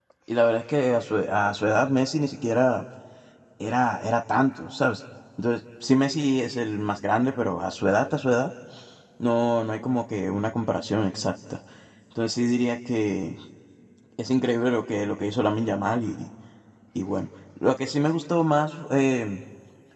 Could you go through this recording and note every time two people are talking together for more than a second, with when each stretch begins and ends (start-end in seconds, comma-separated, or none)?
none